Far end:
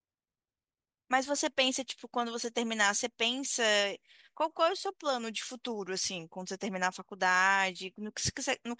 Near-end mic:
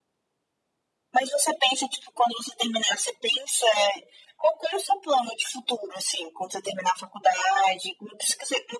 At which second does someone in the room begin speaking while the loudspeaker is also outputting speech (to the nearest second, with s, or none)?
none